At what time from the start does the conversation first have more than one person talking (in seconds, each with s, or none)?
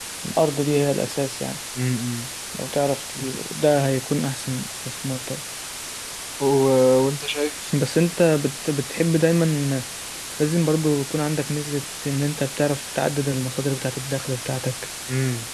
none